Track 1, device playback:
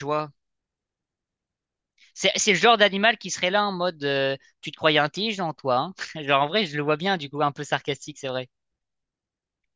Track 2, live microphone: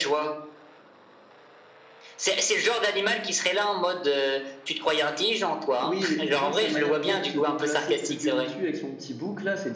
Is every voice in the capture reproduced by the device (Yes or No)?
No